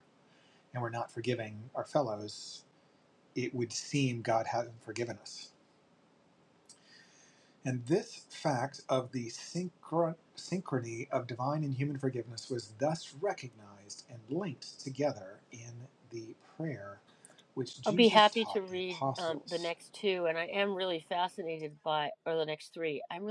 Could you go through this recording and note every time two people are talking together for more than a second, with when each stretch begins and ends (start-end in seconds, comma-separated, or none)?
17.8-19.7